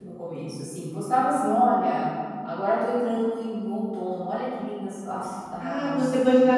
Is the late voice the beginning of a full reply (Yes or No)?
Yes